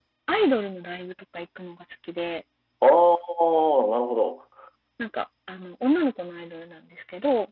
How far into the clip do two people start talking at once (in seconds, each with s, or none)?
none